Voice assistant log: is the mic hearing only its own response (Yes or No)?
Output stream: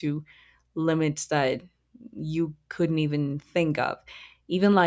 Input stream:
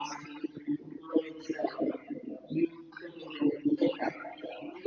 Yes